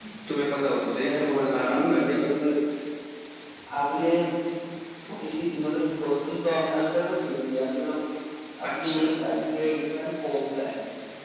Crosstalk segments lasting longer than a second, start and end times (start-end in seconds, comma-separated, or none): 1.0-2.3